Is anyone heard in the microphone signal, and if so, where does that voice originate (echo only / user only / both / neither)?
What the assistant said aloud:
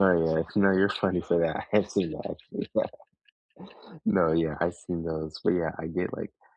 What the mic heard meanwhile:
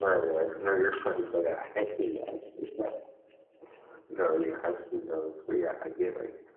echo only